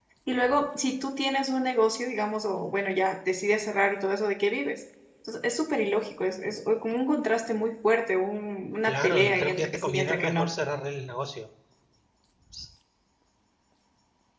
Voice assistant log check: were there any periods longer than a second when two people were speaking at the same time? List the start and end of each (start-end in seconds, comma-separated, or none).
8.8-10.6